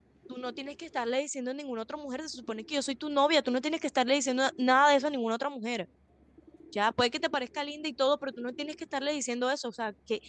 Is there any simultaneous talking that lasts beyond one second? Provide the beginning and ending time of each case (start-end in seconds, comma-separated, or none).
none